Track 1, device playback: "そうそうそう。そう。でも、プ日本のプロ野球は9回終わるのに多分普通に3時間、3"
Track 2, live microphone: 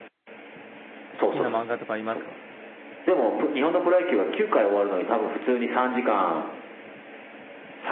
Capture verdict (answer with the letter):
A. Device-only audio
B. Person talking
B